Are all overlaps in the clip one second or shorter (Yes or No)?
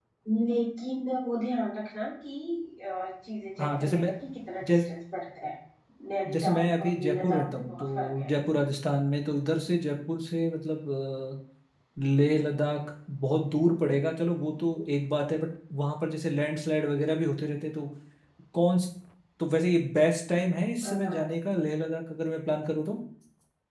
No